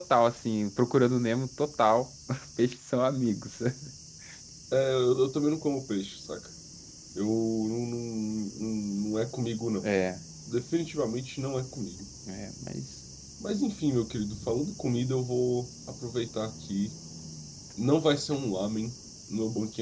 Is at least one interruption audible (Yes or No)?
No